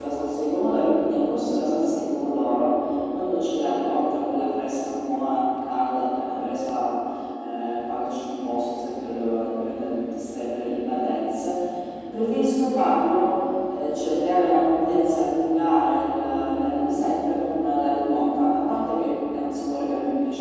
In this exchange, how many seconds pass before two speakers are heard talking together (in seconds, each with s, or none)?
none